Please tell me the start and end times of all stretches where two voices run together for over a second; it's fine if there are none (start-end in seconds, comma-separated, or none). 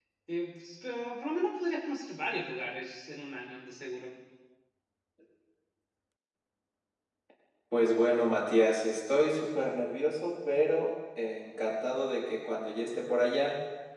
none